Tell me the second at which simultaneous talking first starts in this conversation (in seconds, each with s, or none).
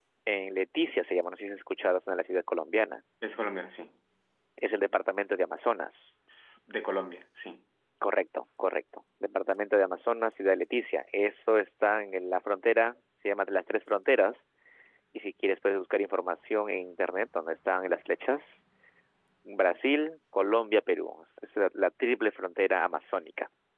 none